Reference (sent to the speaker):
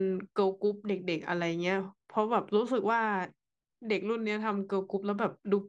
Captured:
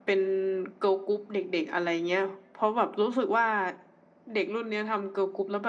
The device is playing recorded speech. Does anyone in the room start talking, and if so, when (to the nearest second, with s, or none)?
none